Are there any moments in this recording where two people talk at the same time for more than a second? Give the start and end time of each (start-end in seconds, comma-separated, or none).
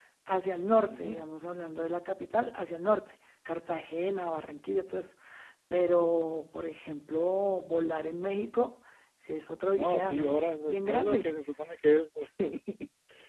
9.7-11.3